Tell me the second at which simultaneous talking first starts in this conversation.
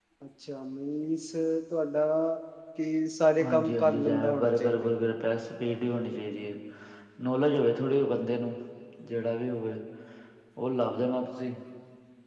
3 s

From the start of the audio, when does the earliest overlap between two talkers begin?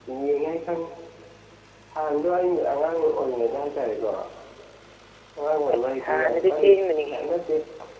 6 s

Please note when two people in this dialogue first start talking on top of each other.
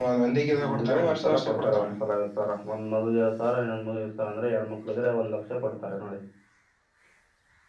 1 s

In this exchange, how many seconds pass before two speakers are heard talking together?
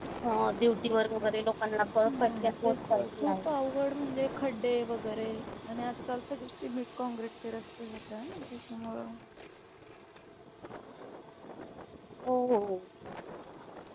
2 s

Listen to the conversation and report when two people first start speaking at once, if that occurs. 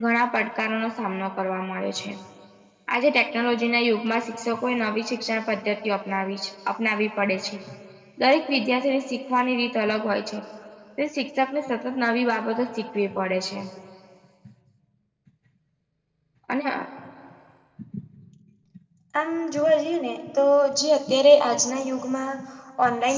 none

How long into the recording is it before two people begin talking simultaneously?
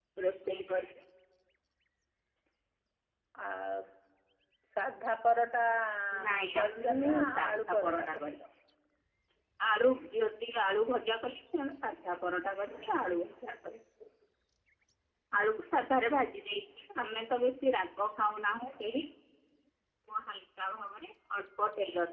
6 s

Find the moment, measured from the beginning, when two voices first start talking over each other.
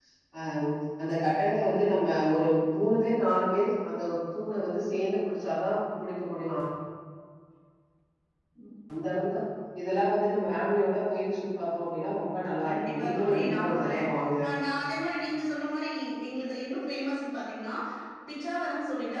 13 s

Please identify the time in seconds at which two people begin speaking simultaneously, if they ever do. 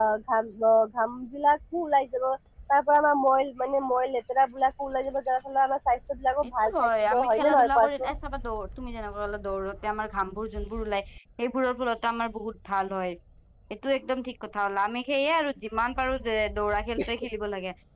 6 s

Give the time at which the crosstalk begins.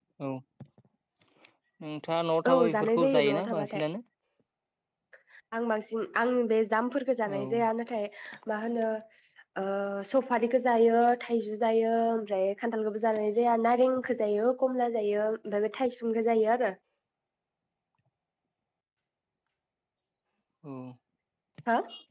3 s

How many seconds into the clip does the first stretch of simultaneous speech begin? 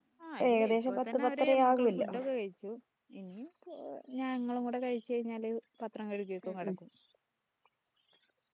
1 s

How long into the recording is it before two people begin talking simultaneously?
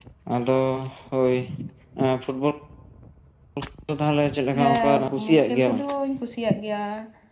5 s

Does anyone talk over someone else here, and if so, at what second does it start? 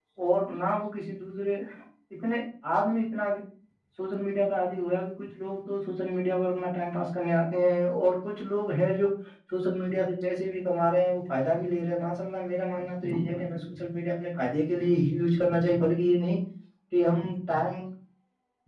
none

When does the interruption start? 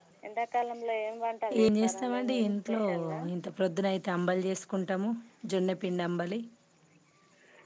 2 s

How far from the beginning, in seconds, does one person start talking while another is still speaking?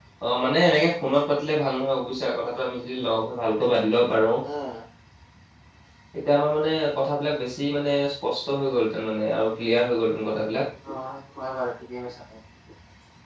none

